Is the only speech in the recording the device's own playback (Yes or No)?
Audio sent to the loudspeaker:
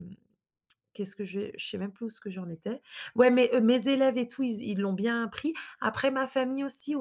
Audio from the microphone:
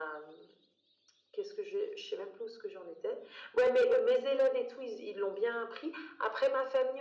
Yes